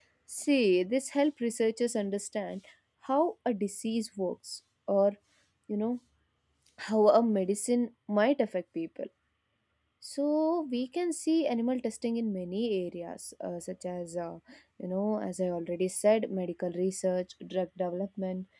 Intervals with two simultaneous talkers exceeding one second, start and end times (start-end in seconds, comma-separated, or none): none